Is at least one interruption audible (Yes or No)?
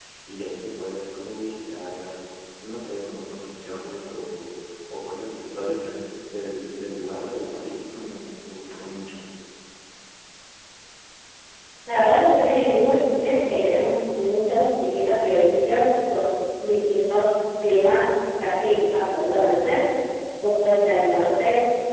No